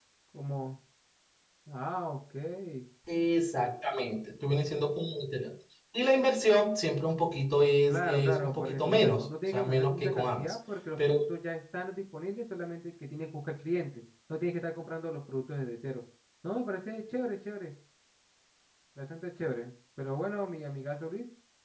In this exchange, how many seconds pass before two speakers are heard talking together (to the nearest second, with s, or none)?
8 s